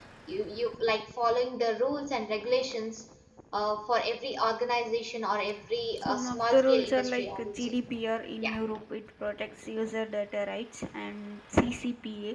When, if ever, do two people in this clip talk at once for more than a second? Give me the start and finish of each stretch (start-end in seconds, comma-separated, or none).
6.1-7.7